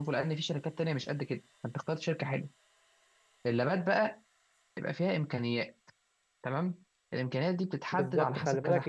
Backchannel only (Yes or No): No